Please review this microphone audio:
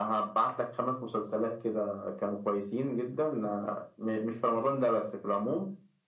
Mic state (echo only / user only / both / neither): echo only